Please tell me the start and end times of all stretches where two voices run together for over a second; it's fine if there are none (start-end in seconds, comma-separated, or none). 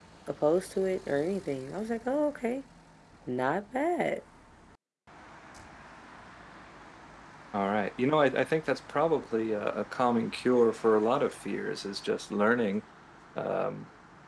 none